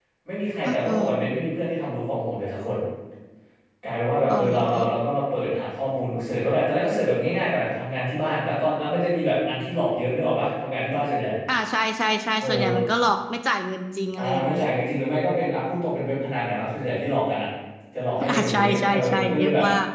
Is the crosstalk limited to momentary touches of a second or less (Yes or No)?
No